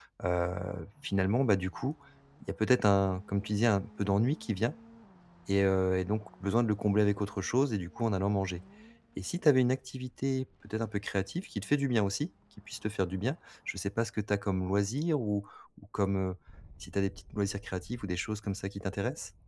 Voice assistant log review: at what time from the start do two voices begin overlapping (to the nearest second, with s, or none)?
none